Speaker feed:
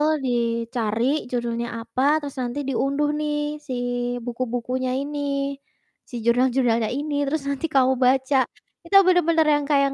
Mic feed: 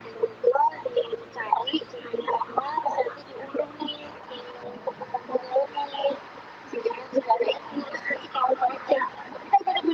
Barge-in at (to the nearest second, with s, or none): none